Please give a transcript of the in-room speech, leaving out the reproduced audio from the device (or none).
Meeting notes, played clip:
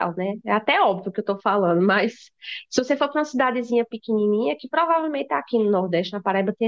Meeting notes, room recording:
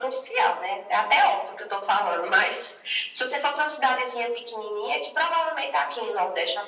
none